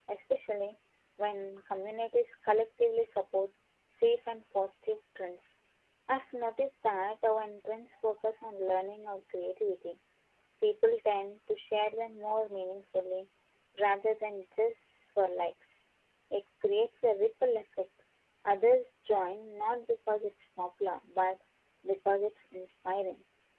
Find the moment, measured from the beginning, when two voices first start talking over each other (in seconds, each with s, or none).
none